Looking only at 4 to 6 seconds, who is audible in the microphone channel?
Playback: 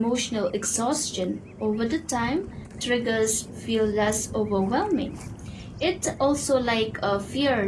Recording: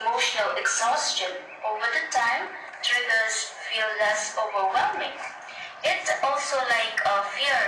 echo only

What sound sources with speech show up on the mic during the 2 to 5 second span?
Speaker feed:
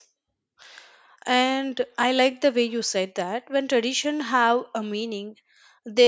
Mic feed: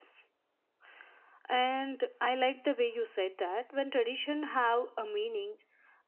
echo only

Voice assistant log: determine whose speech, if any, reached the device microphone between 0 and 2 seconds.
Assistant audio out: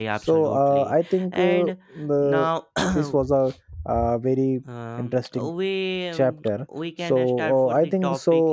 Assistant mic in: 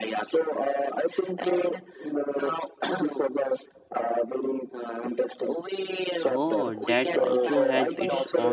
echo only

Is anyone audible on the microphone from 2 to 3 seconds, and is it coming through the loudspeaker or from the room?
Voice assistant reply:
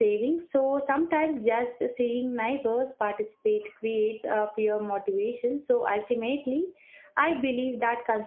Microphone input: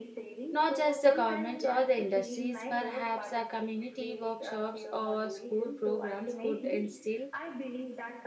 both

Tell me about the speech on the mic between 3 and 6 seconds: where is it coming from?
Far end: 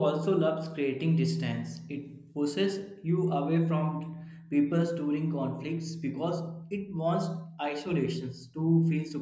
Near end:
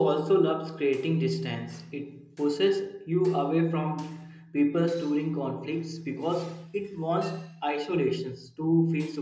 echo only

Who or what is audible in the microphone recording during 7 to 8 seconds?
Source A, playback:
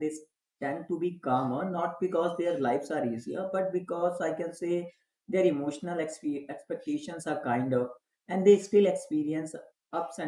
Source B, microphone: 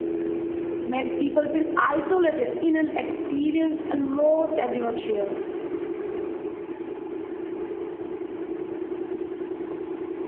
neither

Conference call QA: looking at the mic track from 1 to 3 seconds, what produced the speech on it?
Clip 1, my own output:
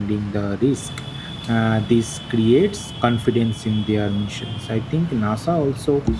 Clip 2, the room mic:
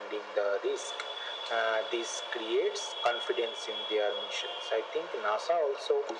echo only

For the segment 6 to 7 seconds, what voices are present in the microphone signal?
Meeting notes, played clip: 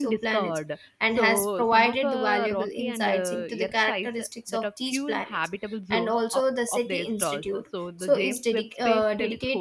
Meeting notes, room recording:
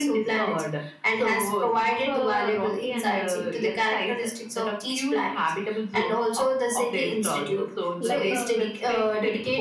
echo only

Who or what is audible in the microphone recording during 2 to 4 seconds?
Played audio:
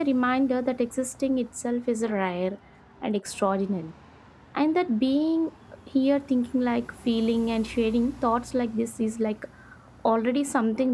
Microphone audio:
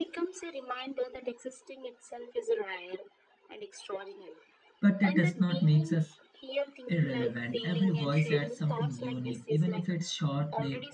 echo only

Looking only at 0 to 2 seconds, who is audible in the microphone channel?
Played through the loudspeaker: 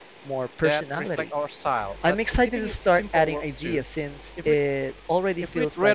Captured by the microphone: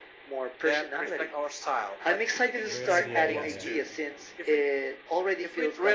echo only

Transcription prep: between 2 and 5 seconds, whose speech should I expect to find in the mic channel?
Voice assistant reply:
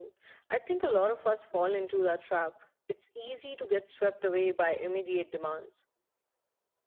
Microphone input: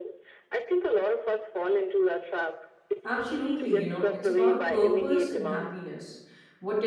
both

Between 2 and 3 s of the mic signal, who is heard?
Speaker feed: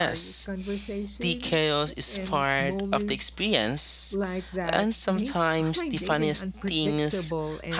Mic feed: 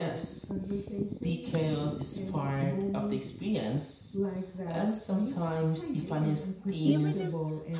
echo only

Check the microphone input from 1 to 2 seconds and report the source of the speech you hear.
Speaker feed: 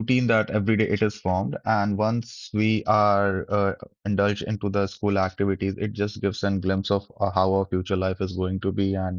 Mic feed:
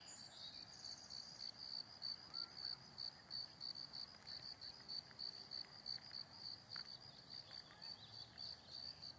neither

